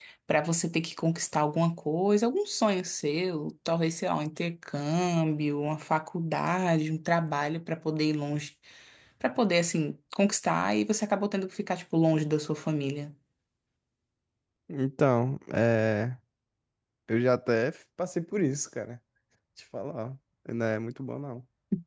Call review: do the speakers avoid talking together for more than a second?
Yes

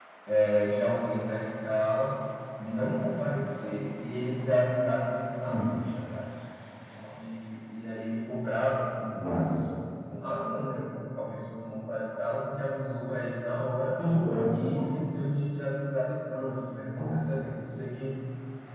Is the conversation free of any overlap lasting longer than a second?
Yes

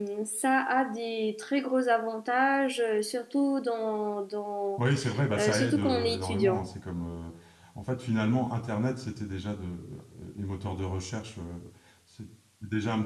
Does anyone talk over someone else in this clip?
Yes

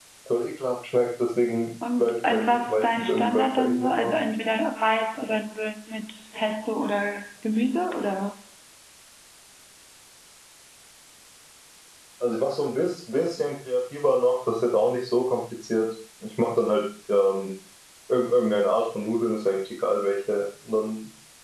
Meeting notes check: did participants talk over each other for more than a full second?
Yes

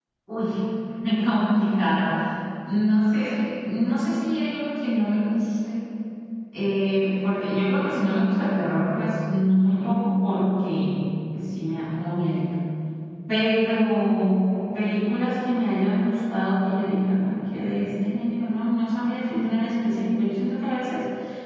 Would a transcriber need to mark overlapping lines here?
No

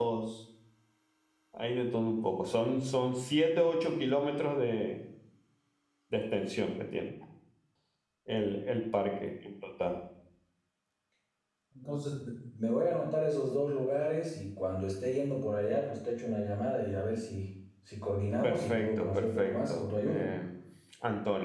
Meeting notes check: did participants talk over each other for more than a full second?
Yes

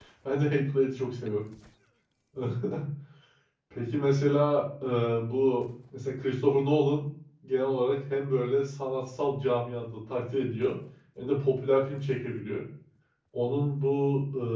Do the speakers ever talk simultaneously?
No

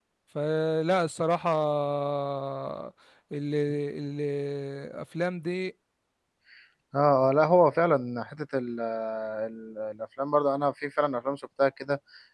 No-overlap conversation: Yes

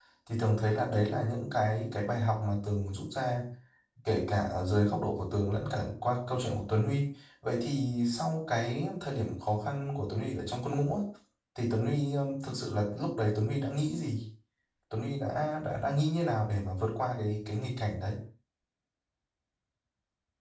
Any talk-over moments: No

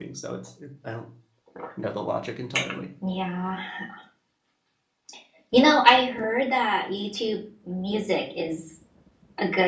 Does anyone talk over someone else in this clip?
No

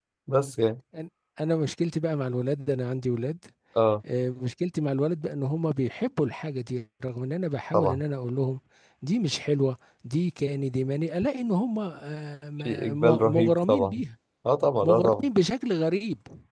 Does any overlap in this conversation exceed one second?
Yes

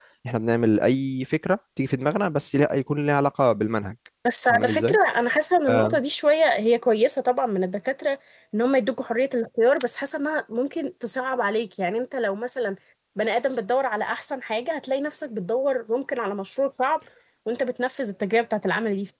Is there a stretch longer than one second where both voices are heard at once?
No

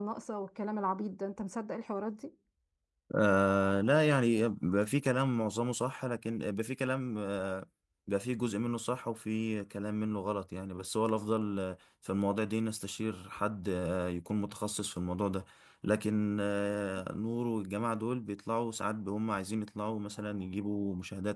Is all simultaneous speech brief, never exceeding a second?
Yes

